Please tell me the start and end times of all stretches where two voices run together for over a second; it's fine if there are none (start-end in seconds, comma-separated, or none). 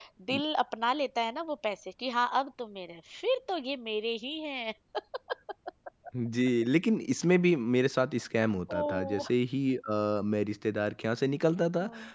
none